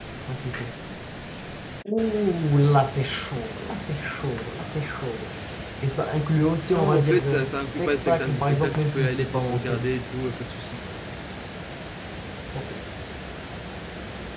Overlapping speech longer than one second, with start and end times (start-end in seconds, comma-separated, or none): 6.7-9.8